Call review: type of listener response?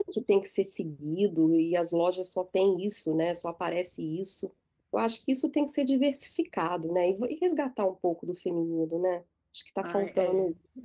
taking over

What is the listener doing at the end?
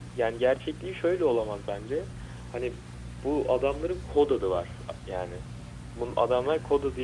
listening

